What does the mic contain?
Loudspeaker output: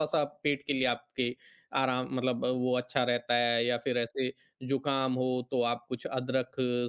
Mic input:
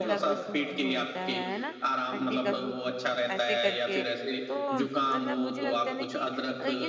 both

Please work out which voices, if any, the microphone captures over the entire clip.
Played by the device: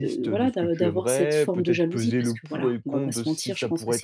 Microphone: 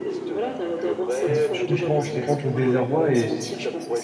both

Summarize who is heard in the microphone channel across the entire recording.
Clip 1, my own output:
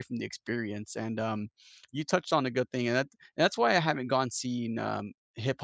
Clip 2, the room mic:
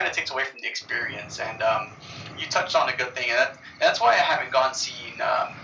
echo only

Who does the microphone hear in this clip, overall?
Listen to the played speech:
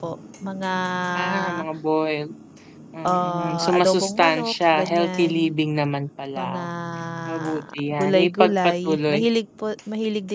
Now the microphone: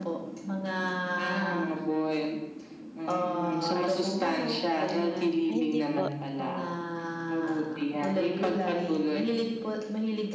both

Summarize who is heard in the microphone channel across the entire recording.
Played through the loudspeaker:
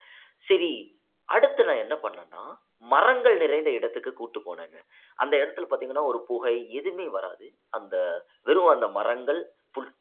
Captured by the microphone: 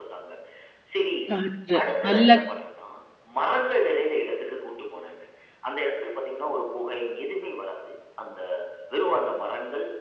both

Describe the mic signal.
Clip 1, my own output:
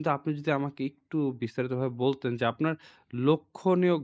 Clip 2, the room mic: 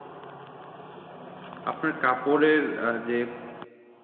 user only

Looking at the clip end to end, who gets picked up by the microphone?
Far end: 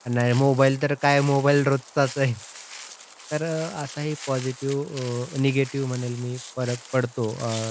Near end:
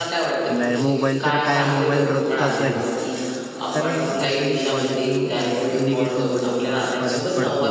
both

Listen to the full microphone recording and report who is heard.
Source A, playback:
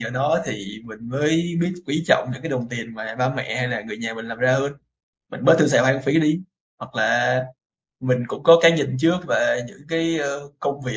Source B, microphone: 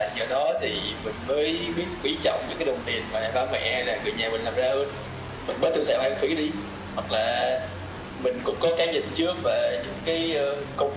echo only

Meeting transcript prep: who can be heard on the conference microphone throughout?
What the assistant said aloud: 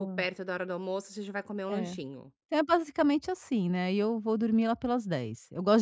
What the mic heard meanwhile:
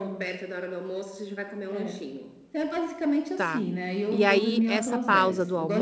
both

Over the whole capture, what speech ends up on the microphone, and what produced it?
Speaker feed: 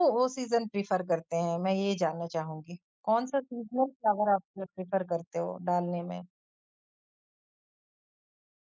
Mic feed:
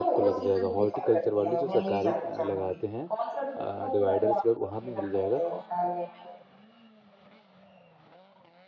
both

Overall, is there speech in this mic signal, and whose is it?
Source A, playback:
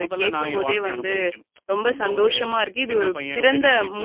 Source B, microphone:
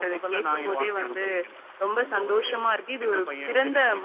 echo only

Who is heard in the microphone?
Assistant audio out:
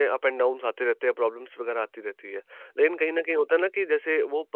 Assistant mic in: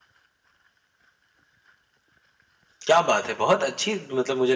user only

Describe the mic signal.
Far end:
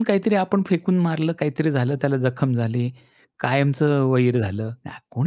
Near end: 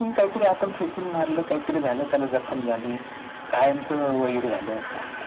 echo only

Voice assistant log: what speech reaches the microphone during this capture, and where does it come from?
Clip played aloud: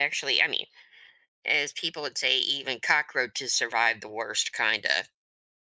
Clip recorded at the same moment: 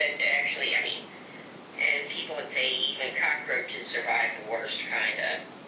echo only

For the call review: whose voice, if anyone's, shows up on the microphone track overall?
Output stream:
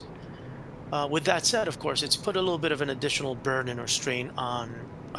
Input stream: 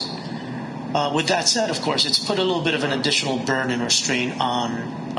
both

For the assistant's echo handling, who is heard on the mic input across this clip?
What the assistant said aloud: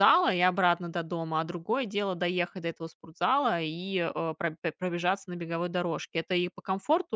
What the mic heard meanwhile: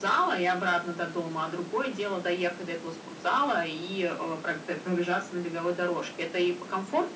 echo only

